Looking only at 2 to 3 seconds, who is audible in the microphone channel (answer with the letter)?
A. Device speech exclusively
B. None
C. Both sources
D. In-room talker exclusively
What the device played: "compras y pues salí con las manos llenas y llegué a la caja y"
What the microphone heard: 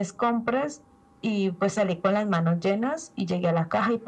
A